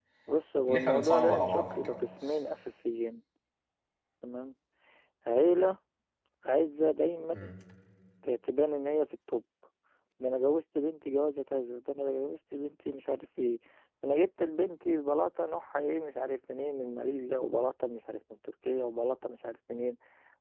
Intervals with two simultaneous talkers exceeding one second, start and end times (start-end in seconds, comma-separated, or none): 0.7-2.4